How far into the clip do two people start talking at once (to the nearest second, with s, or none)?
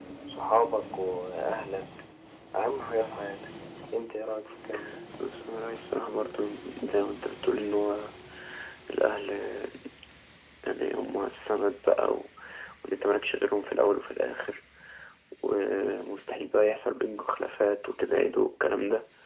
none